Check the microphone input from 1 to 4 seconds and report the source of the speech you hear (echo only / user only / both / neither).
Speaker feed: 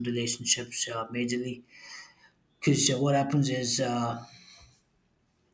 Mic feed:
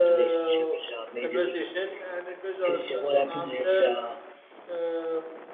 both